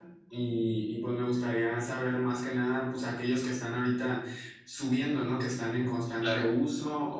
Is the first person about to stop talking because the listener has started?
No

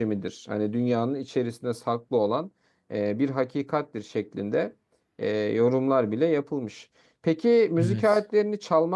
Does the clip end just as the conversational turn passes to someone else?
No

